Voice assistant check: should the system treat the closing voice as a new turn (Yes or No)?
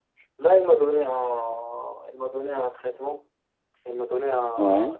No